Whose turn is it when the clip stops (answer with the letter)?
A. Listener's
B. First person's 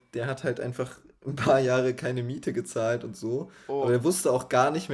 B